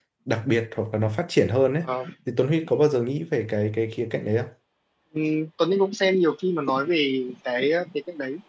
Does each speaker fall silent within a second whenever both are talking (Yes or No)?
Yes